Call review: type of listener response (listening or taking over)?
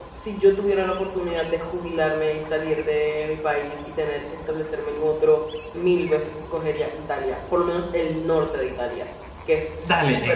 taking over